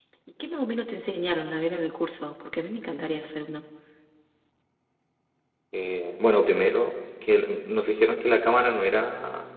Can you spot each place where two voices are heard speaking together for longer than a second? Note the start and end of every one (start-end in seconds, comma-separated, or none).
none